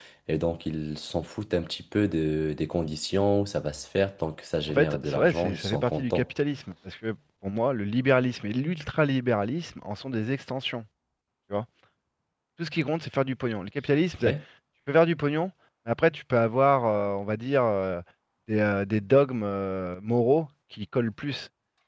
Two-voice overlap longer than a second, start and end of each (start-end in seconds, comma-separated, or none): 4.7-6.2